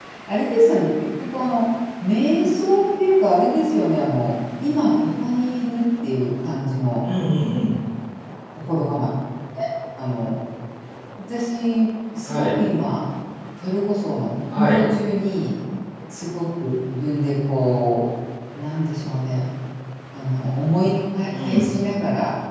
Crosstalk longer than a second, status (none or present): none